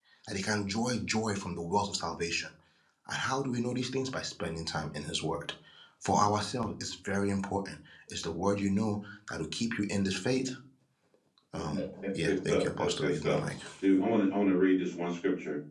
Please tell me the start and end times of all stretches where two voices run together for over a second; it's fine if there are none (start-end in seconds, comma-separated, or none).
12.0-13.4